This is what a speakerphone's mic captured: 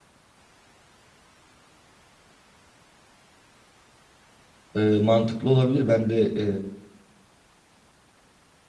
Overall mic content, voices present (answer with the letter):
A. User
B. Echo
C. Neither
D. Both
A